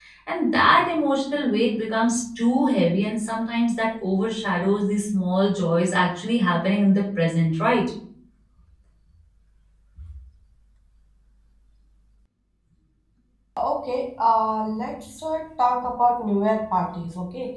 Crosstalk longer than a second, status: none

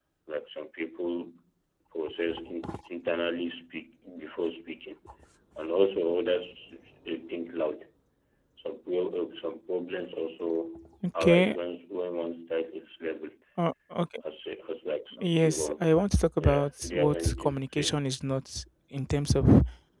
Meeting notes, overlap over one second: present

